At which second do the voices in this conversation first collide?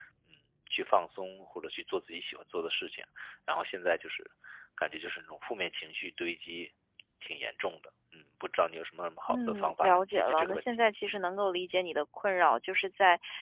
9.3 s

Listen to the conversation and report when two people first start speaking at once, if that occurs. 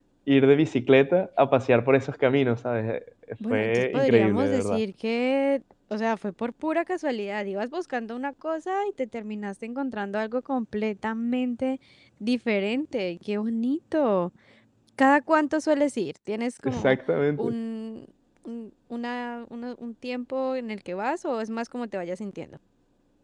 3.5 s

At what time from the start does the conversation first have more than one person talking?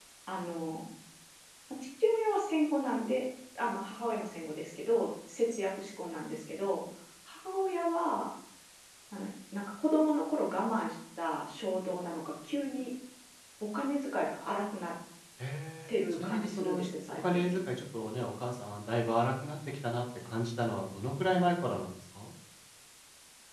15.9 s

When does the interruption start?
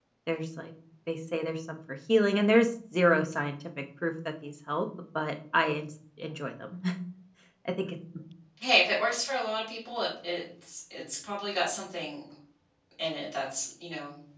none

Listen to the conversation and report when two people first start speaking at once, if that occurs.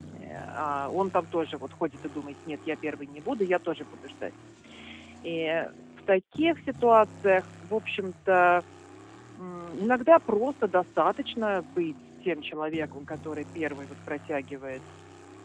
none

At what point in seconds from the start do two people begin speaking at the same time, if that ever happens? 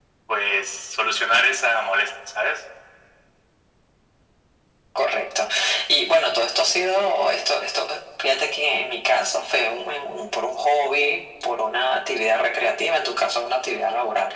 none

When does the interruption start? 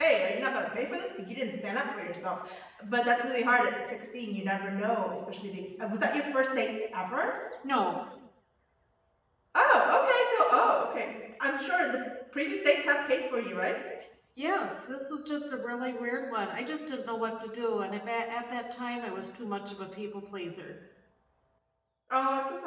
none

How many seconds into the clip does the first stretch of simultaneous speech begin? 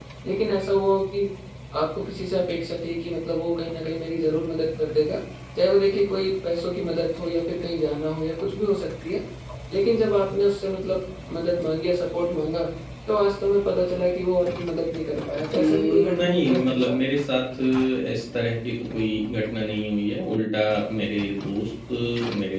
15.5 s

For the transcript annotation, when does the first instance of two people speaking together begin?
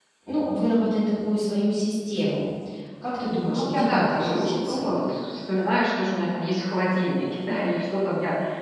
3.4 s

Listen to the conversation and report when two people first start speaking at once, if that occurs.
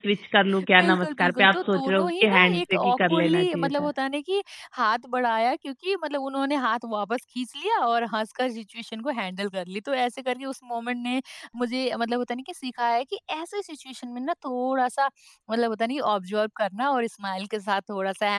0.8 s

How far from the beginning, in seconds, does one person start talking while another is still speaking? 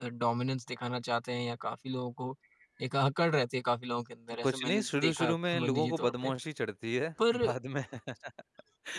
4.4 s

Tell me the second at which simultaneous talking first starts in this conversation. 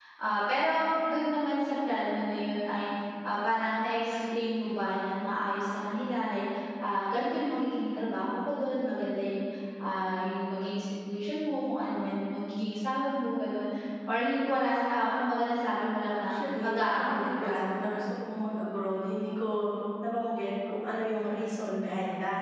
16.3 s

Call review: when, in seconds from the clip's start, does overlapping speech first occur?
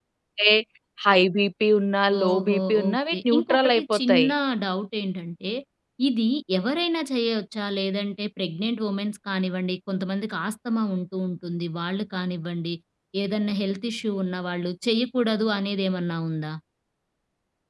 2.1 s

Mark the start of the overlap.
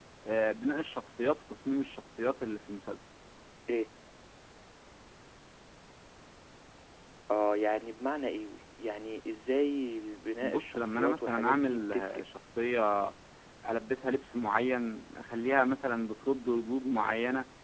10.4 s

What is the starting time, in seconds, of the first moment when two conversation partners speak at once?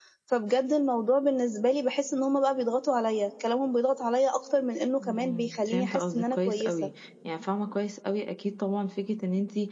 5.0 s

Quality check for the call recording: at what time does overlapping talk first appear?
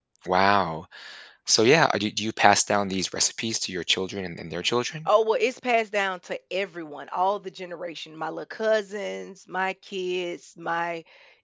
none

